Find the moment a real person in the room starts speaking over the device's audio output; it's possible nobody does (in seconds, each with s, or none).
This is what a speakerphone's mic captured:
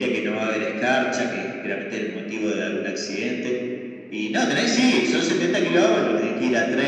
none